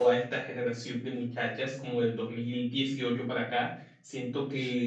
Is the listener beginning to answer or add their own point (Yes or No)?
No